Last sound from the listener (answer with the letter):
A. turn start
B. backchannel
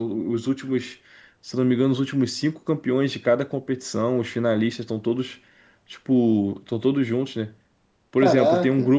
B